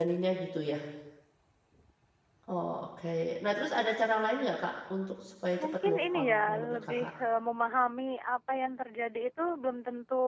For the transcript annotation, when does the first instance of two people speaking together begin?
5.6 s

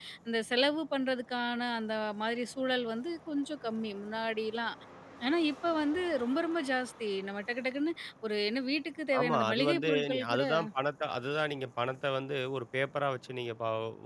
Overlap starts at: 9.1 s

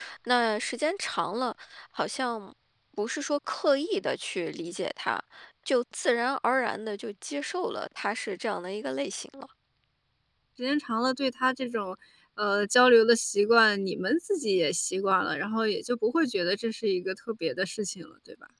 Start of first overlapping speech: none

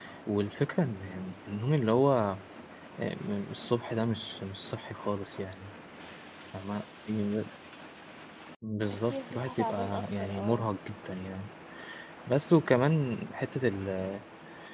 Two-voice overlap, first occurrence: 9.1 s

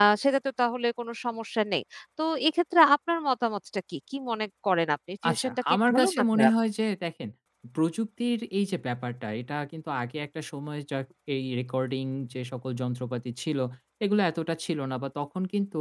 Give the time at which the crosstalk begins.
5.2 s

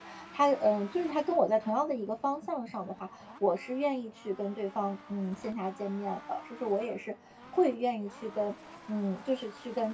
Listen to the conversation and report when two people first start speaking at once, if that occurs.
none

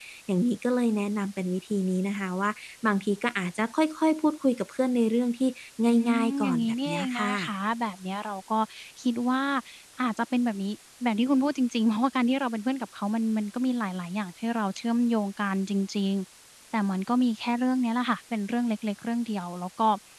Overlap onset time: 6.1 s

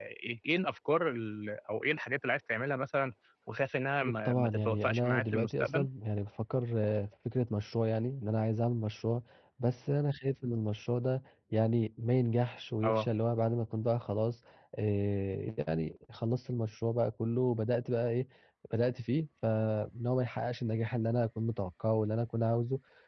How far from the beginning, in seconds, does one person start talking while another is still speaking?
4.0 s

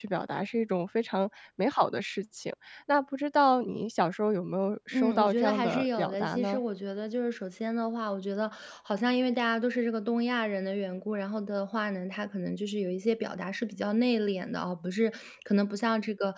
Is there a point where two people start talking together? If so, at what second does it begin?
4.9 s

